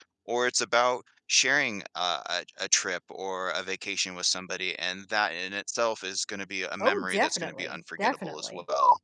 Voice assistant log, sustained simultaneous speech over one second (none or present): present